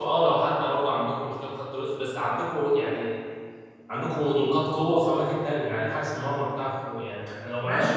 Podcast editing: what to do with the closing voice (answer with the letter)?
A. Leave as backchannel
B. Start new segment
B